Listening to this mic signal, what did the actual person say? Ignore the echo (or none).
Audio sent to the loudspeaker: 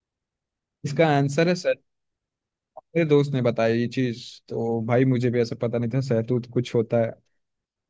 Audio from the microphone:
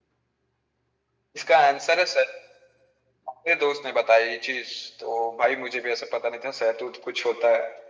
none